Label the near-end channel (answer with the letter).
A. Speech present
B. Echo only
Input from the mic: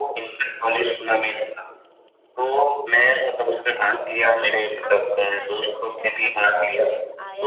A